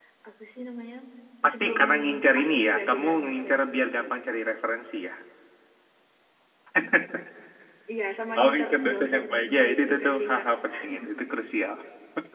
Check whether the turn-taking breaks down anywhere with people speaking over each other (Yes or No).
Yes